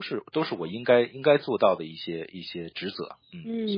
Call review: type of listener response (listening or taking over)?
taking over